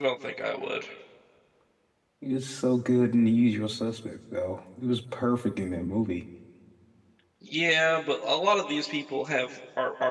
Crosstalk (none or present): none